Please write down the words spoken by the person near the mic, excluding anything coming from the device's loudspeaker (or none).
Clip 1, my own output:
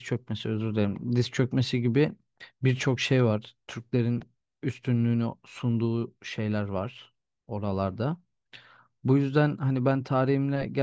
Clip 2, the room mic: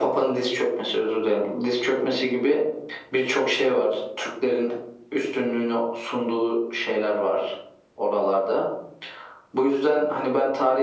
none